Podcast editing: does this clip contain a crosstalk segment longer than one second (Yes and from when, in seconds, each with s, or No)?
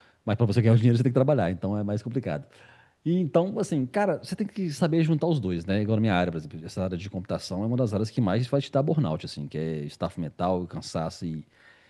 No